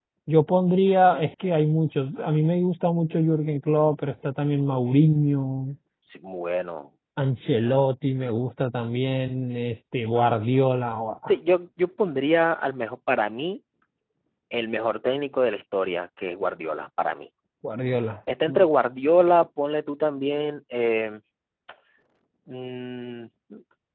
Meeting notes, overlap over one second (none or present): none